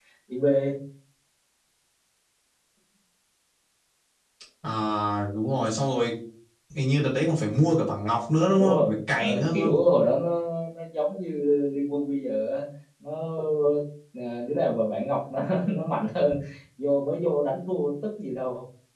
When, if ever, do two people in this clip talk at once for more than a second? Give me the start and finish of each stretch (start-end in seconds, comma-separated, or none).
8.6-9.8